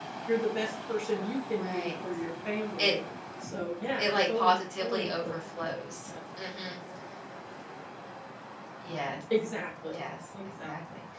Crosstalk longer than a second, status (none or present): present